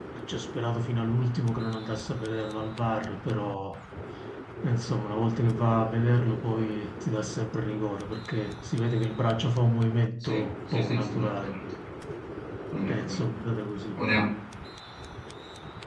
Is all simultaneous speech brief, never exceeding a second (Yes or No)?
No